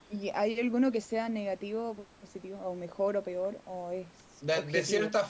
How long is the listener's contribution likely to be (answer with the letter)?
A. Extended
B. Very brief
A